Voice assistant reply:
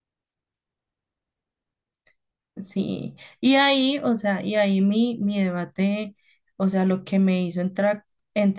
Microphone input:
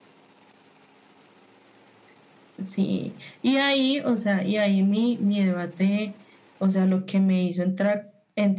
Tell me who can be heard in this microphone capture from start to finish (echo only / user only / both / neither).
echo only